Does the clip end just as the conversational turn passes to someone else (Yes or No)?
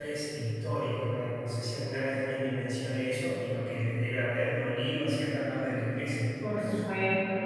Yes